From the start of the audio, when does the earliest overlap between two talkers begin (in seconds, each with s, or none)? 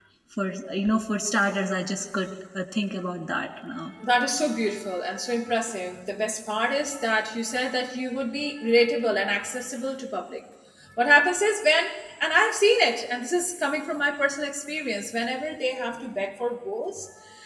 none